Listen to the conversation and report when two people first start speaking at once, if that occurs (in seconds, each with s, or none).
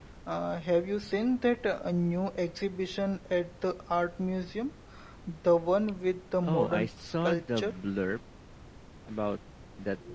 6.4 s